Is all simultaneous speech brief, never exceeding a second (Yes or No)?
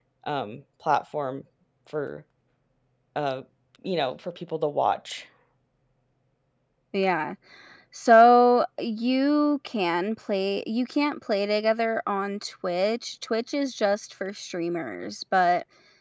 Yes